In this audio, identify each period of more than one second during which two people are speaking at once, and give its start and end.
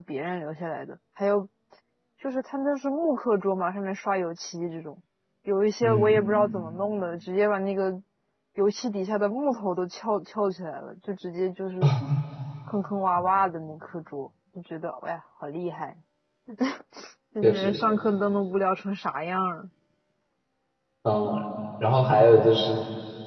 none

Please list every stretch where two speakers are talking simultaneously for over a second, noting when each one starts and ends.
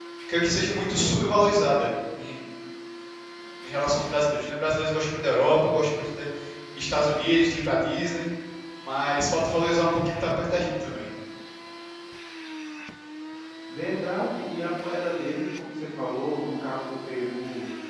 none

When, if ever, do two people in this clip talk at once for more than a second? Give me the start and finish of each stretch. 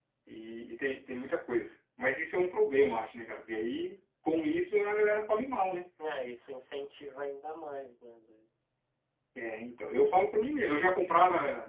none

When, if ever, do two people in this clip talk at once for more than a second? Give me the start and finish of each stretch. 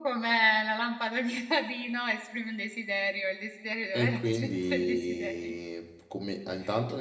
3.9-5.5

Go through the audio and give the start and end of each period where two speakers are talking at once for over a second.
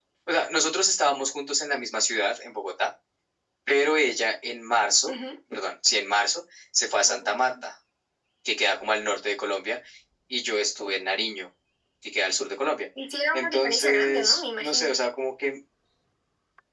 13.3-15.0

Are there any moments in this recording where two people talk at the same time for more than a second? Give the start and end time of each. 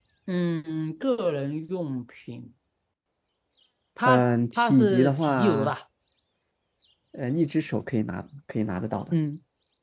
4.0-5.7

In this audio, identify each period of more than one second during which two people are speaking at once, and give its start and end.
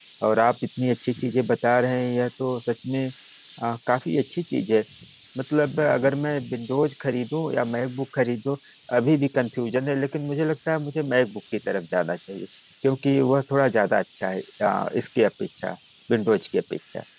none

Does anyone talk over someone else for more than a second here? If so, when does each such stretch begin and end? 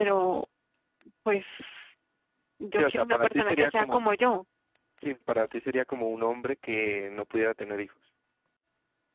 2.7-4.0

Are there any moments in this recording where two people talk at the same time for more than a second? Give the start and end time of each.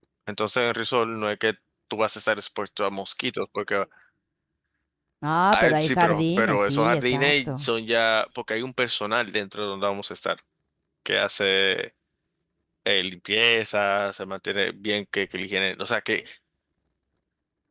5.5-7.7

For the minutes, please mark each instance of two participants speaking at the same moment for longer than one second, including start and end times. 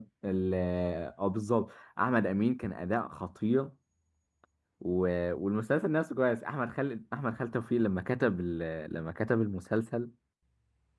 none

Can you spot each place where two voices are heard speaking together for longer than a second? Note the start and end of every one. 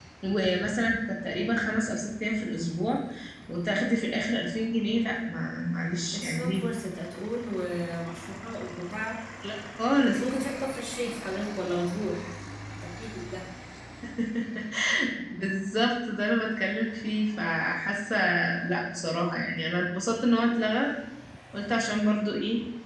none

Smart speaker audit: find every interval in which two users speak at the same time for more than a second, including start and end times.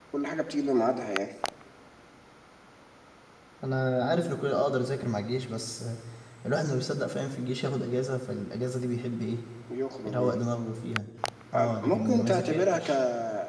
11.5-12.9

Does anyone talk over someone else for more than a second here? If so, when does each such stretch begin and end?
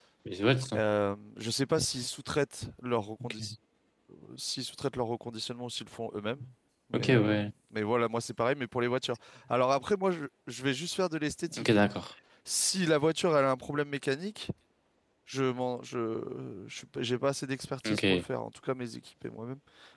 none

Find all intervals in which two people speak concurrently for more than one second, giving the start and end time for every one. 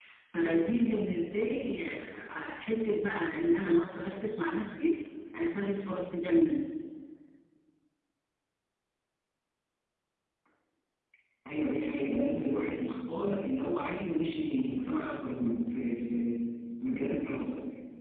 none

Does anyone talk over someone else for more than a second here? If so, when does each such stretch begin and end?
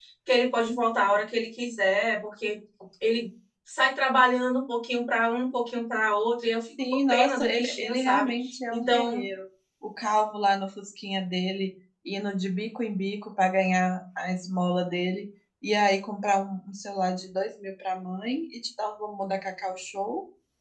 6.9-8.3

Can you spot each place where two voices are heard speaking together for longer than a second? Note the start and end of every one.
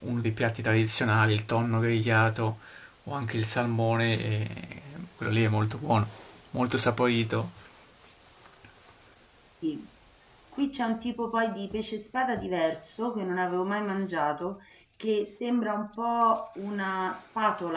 none

